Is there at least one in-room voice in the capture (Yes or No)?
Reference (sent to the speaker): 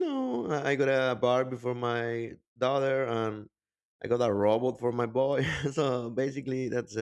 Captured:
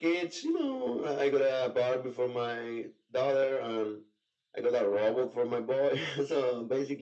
No